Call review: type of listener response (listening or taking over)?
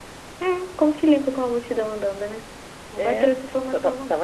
taking over